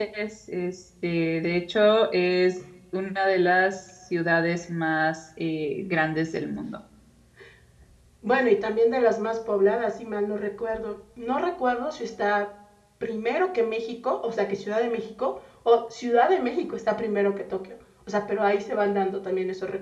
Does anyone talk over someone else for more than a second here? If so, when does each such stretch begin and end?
none

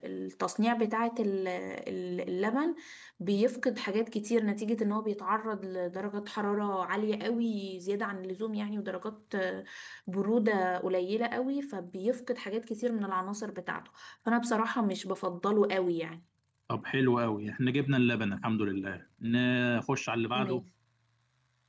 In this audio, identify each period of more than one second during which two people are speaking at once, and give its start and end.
none

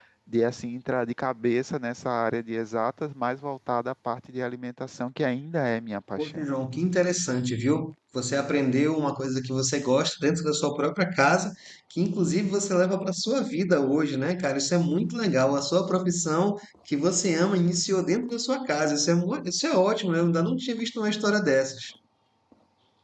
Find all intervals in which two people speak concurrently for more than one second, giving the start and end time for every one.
none

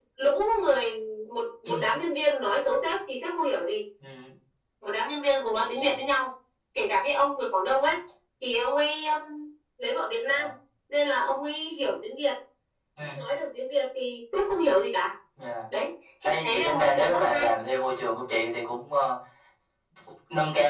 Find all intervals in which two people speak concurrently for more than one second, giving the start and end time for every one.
16.2-17.5

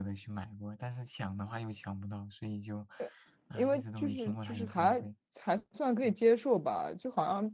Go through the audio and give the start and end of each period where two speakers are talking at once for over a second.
3.6-5.0

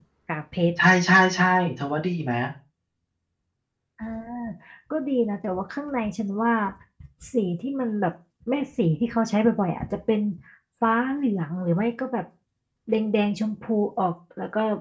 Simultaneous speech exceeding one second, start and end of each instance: none

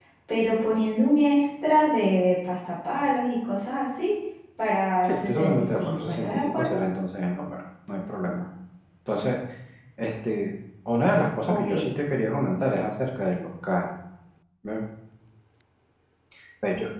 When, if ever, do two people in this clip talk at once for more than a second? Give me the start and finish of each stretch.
5.0-6.8

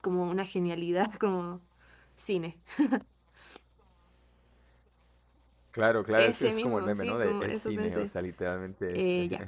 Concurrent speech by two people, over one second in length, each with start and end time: 6.2-8.1

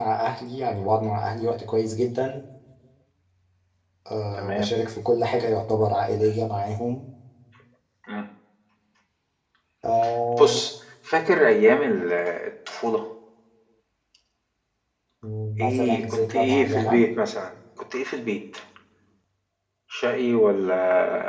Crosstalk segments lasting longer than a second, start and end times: 15.6-17.0

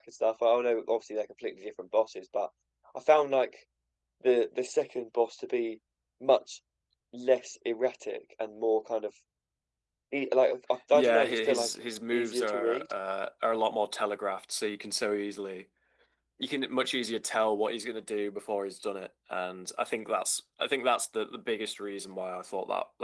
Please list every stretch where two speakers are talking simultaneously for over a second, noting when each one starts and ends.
10.9-12.8

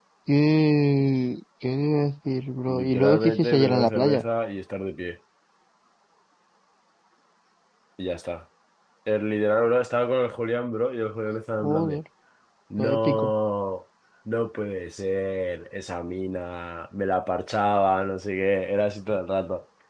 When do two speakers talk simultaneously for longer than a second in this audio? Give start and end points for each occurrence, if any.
2.7-4.2

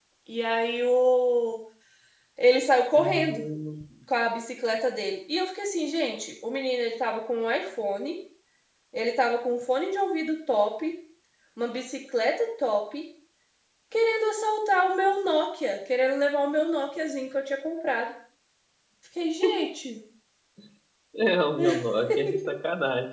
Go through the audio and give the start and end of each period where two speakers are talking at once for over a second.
none

